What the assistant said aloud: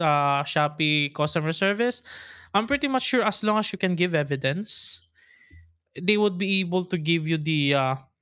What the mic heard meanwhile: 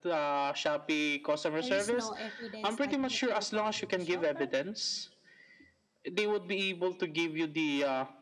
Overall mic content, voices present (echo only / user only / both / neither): both